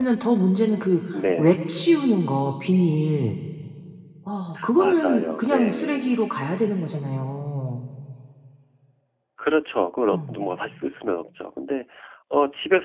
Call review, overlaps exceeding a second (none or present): present